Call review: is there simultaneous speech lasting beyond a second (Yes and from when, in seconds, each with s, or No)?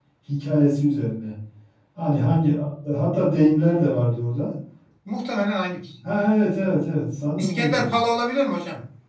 No